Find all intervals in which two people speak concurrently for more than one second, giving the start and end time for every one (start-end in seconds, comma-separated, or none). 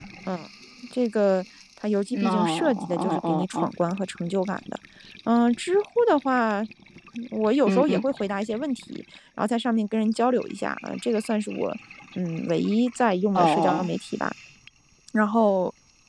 2.2-3.7